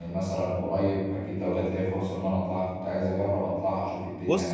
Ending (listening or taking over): taking over